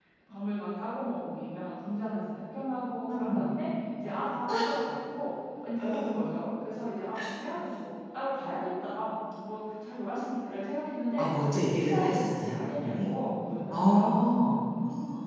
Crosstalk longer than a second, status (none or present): present